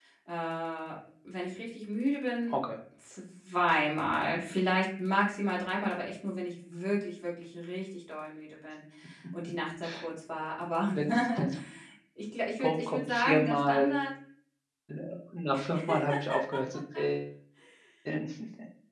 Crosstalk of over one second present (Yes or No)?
Yes